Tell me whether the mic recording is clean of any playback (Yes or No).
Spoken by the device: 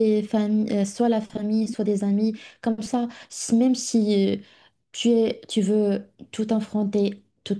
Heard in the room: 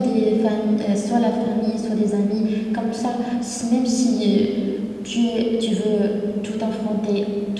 No